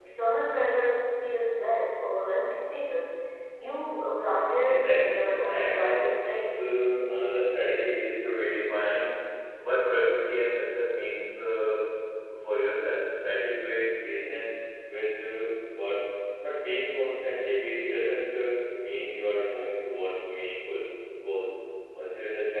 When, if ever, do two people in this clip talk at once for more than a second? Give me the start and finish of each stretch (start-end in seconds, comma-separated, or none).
4.7-6.2